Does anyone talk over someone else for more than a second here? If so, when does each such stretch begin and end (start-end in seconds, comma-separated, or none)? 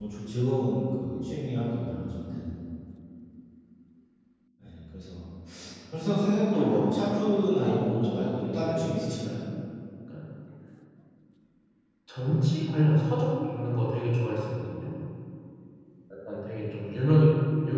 7.6-8.9